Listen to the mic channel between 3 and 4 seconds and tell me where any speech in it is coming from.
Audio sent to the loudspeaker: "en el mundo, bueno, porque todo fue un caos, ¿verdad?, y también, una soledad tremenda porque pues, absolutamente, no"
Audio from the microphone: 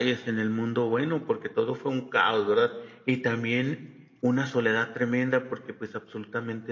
echo only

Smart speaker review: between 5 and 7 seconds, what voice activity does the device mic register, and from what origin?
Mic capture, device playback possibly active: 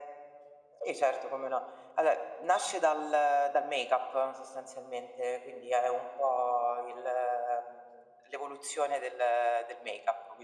echo only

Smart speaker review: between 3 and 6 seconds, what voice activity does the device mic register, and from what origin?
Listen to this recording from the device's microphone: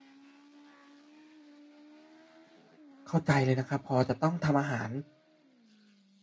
user only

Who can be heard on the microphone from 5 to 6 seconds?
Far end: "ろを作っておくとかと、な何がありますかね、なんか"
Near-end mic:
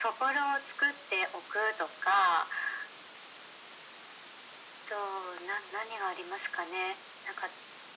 echo only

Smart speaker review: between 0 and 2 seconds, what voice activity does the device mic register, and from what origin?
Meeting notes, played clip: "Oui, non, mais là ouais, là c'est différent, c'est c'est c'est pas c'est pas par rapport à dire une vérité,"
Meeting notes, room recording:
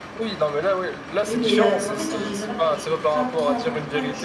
both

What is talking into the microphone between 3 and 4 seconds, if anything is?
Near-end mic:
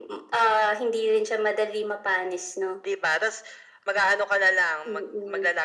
echo only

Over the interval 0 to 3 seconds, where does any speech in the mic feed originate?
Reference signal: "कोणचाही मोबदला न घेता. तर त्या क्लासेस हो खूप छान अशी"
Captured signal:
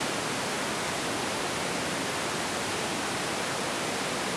neither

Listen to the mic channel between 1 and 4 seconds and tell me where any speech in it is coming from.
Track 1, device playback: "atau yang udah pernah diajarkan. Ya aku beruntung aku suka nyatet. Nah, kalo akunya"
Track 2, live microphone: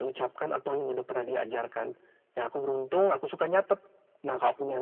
echo only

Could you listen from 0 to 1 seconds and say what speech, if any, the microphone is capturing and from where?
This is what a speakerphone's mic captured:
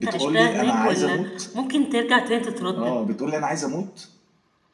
both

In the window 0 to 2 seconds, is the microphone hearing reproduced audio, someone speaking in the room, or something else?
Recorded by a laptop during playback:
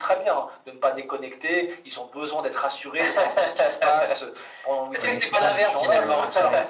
echo only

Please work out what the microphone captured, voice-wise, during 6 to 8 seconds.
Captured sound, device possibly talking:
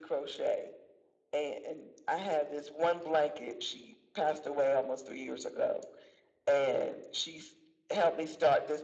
echo only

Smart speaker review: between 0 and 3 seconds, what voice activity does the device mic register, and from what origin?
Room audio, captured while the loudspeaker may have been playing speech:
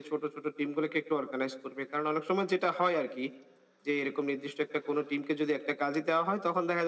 echo only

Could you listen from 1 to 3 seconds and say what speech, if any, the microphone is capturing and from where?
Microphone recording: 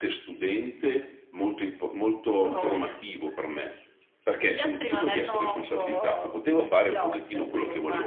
echo only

